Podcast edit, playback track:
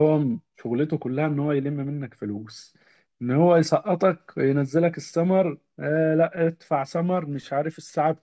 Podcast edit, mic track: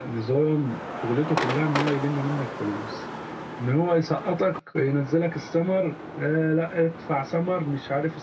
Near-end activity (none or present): none